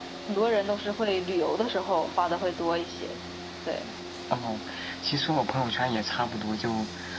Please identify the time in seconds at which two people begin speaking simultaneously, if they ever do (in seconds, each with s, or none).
none